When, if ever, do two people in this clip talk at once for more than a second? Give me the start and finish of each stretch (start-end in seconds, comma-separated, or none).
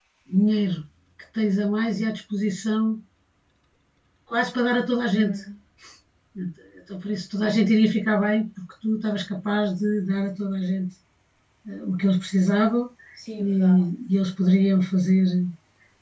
none